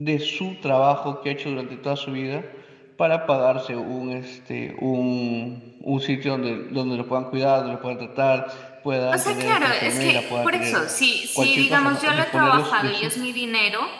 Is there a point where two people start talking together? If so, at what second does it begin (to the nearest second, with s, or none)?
9 s